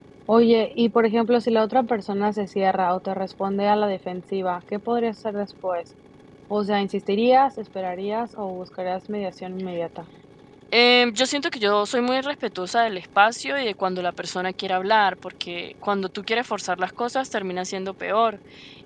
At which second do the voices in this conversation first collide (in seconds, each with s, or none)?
none